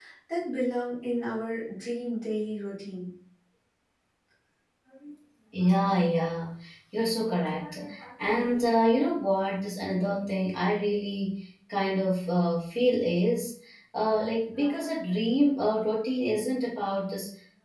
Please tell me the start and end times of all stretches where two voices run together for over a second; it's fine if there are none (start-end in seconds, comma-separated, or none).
none